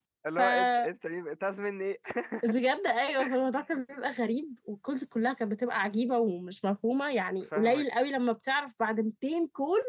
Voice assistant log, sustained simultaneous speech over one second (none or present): none